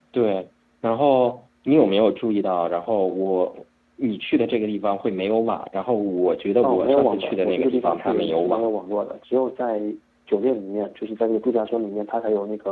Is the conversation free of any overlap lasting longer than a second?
No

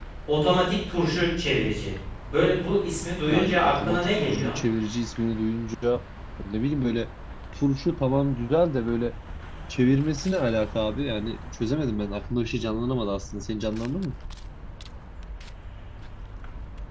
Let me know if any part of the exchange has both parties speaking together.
Yes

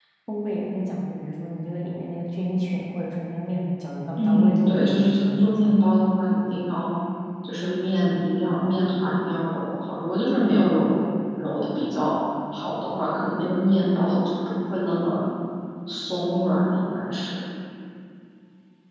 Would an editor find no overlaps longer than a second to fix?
No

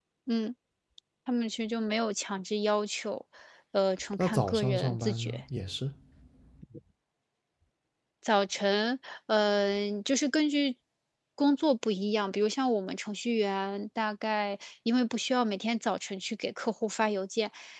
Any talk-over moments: Yes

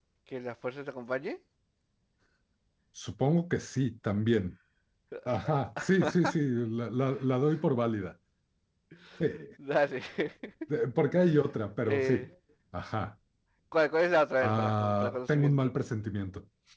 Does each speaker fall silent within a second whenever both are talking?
No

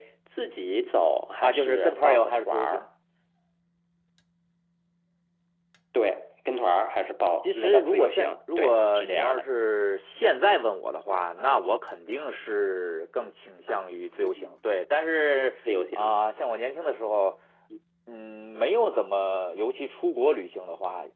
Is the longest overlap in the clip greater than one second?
Yes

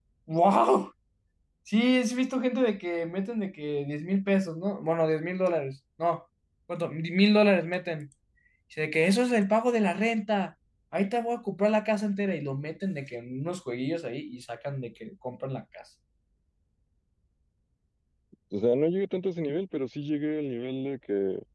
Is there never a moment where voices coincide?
Yes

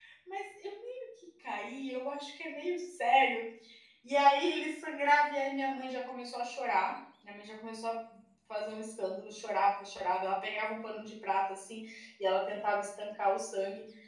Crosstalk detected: No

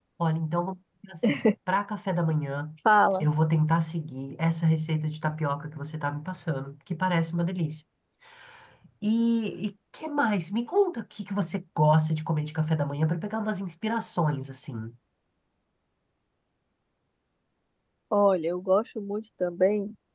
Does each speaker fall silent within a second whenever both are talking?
Yes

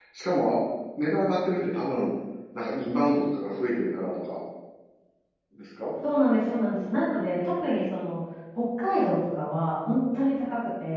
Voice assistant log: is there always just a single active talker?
Yes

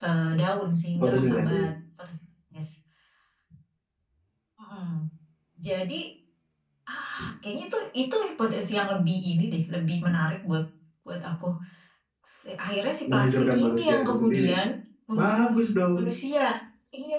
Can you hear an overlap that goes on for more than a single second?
Yes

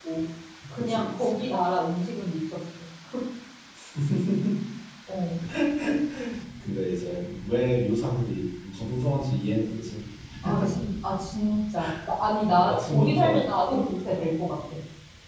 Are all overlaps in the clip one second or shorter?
No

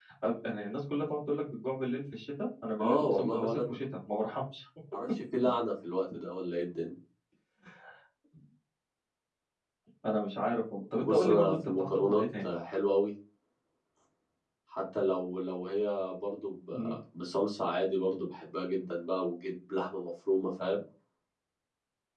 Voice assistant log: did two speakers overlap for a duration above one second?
Yes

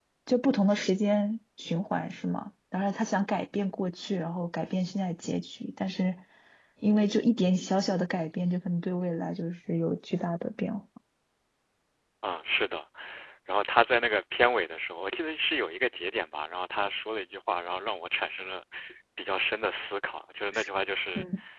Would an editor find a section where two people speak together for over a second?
No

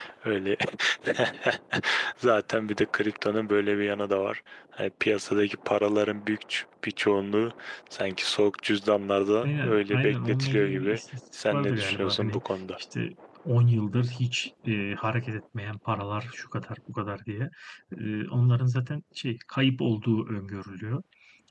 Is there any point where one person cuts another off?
Yes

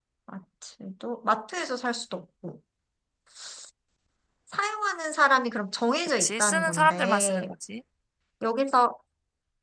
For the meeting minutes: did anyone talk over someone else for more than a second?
Yes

